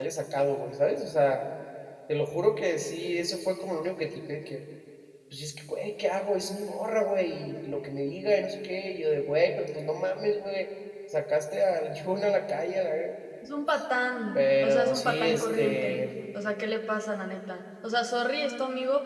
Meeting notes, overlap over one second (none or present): present